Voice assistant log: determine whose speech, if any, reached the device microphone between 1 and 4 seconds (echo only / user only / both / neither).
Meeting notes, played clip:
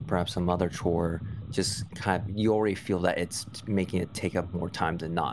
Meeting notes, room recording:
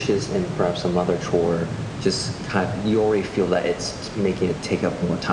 echo only